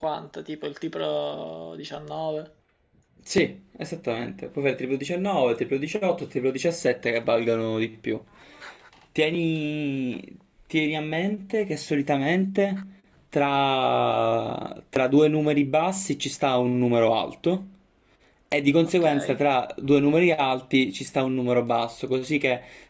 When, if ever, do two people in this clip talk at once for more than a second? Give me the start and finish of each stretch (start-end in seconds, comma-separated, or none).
none